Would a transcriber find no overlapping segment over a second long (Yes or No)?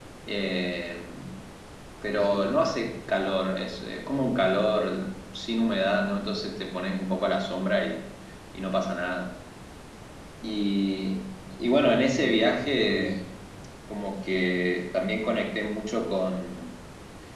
No